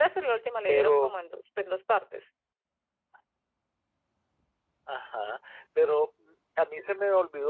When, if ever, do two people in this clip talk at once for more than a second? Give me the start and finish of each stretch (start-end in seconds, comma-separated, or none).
none